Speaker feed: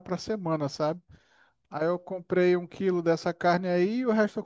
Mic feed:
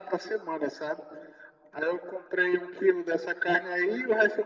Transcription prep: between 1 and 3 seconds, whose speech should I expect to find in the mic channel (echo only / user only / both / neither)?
echo only